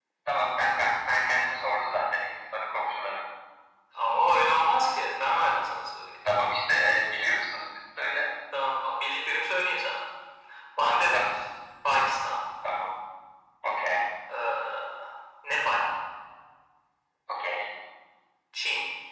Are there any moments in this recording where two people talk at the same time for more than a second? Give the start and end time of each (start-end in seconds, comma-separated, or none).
none